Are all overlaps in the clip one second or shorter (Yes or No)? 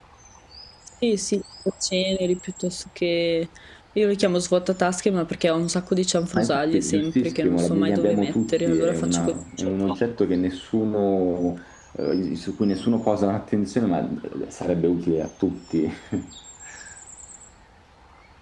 No